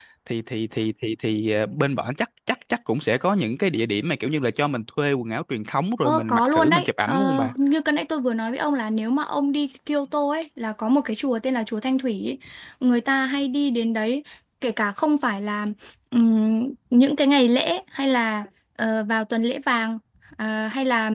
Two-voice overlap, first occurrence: 6 s

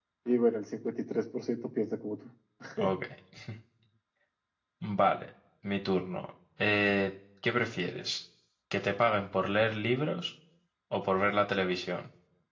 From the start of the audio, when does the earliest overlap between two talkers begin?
none

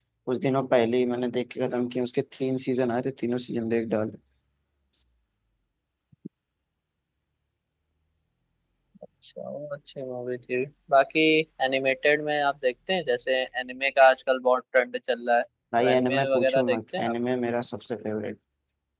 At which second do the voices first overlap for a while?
16 s

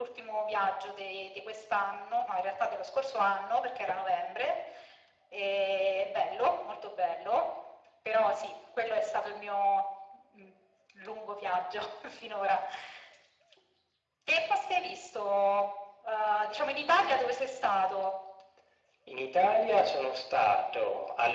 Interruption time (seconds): none

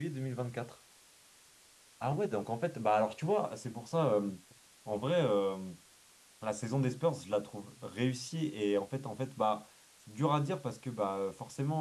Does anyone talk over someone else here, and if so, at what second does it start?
none

